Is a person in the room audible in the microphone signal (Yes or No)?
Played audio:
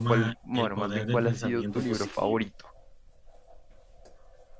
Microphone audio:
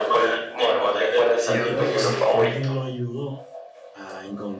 Yes